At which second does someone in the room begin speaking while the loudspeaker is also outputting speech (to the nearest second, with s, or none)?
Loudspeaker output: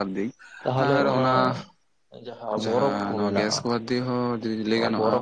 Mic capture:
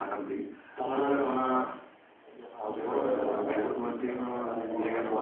3 s